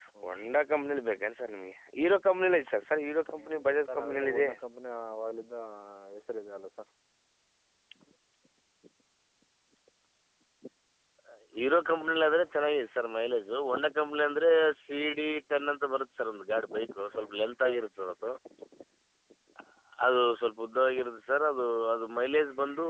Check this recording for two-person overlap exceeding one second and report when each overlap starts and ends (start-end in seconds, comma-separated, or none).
3.3-4.5